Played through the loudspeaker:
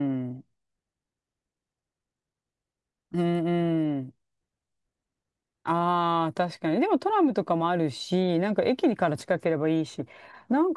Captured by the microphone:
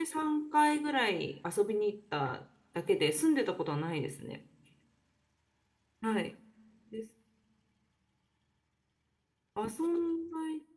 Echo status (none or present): none